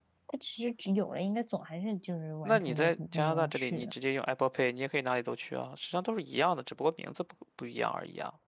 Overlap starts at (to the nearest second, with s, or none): 2 s